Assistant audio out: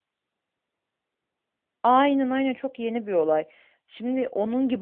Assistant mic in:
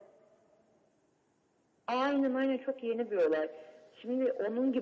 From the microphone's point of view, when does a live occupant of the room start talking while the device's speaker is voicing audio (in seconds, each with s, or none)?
none